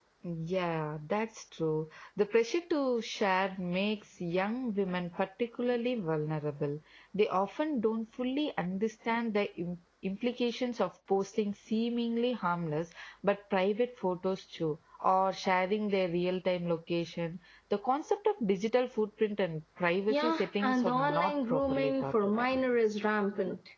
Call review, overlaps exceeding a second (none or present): present